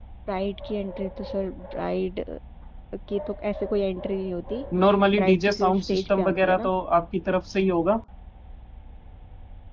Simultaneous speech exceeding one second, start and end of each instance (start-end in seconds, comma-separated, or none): 5.1-6.7